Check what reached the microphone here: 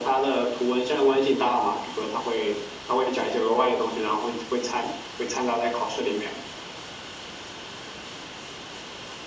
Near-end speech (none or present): none